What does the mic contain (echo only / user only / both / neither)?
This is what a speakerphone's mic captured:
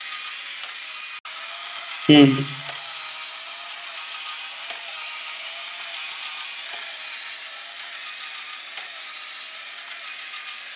user only